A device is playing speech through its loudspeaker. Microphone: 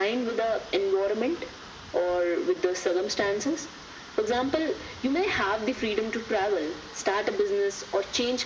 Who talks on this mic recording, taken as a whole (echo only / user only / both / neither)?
echo only